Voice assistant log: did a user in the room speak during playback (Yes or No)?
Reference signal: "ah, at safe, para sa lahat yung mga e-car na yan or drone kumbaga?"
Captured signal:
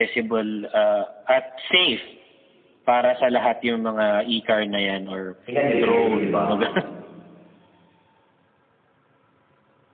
Yes